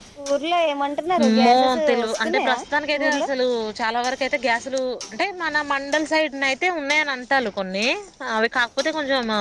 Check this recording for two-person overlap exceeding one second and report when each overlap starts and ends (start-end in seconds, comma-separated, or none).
1.2-2.6